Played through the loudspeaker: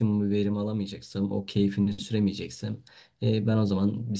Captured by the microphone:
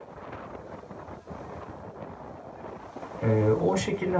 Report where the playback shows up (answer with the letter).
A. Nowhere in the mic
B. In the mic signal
A